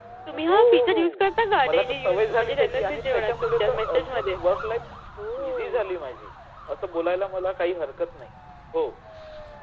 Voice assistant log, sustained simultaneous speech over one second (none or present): present